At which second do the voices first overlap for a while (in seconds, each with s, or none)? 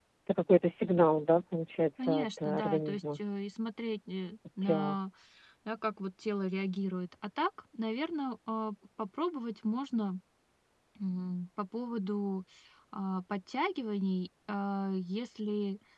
2.0 s